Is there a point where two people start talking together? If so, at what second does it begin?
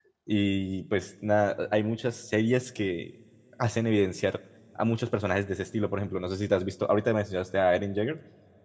none

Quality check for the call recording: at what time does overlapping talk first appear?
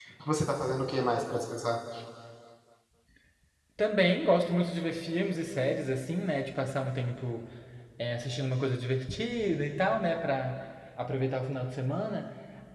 none

